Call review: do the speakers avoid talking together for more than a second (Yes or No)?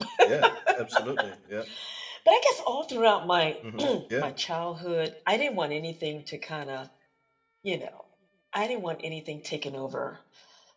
Yes